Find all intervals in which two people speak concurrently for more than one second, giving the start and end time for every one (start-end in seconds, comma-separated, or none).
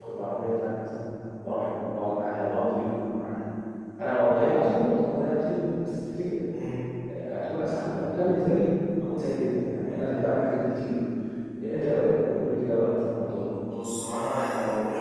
none